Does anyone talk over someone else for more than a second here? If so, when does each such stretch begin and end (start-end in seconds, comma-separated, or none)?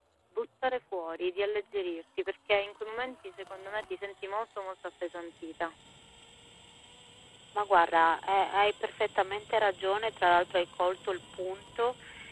none